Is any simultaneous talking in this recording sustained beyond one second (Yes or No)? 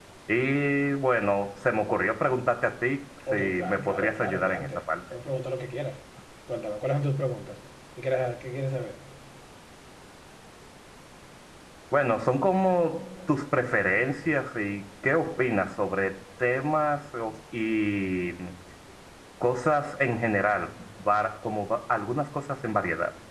Yes